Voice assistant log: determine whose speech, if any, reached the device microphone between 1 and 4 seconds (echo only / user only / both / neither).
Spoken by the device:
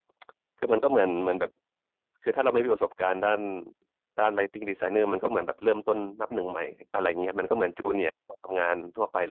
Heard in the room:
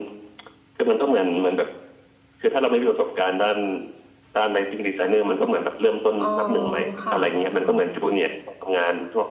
echo only